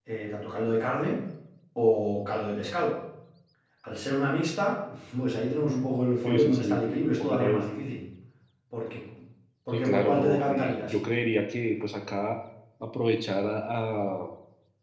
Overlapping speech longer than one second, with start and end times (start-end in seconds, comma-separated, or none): 6.2-7.7, 9.7-10.9